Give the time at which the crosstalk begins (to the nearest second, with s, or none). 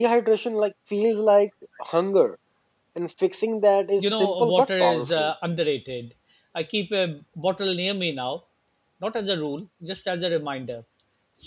4 s